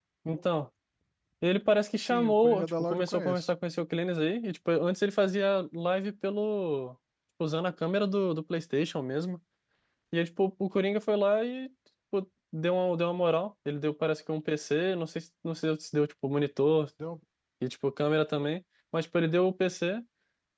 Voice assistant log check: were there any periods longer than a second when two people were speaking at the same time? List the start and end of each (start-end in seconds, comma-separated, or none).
2.0-3.5